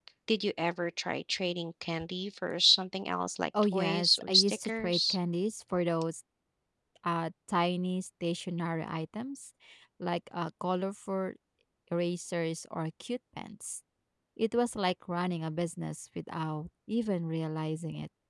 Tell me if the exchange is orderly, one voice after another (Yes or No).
No